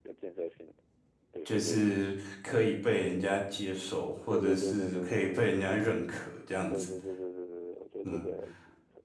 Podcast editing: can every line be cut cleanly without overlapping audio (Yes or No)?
No